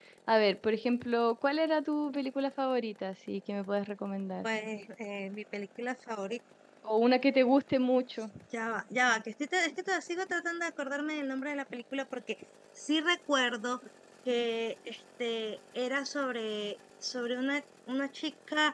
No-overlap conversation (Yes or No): Yes